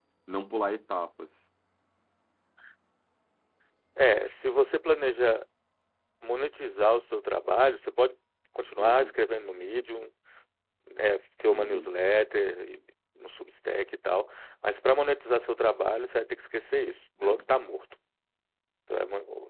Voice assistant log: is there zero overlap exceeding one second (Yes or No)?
Yes